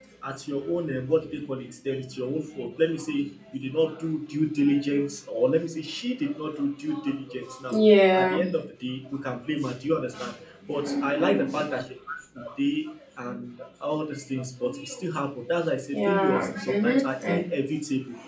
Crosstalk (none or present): present